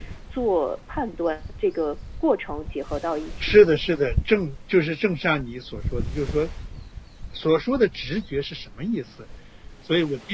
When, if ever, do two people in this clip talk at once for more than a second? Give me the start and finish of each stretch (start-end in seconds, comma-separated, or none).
none